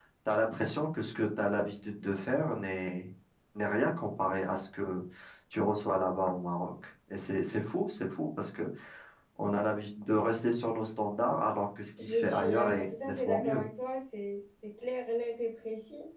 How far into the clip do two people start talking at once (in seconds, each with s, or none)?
12.0 s